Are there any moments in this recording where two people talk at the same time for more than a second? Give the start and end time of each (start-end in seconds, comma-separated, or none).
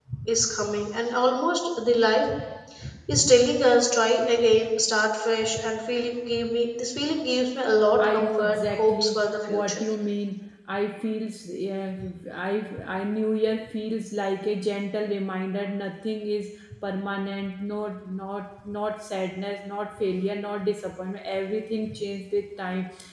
8.0-9.9